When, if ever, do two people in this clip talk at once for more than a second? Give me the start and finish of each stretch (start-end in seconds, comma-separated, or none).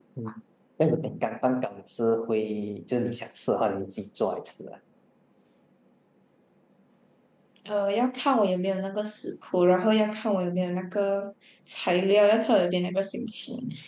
none